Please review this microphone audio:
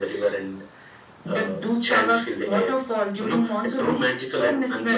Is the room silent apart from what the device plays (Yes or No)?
Yes